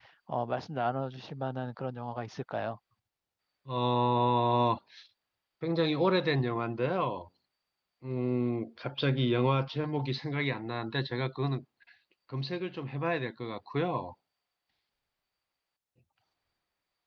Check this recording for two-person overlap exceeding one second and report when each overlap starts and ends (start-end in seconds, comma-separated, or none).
none